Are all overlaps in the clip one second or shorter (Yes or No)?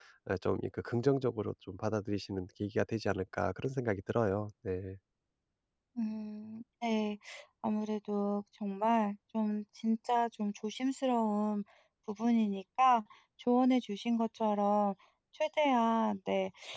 Yes